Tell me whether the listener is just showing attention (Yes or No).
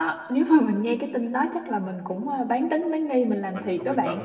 No